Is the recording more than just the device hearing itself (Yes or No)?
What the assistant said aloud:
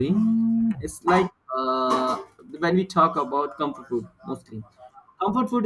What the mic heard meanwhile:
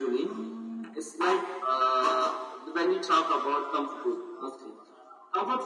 No